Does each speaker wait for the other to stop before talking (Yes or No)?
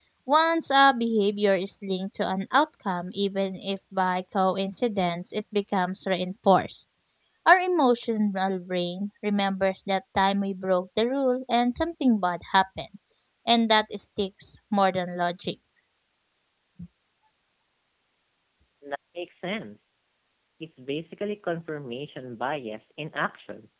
Yes